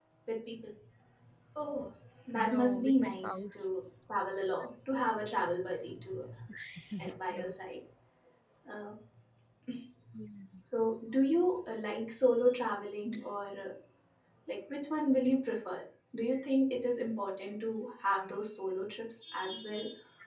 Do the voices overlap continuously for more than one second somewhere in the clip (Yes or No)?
Yes